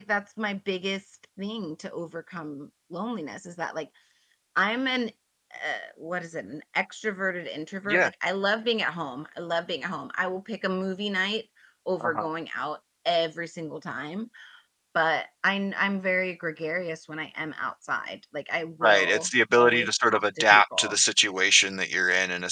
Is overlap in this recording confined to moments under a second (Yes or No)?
No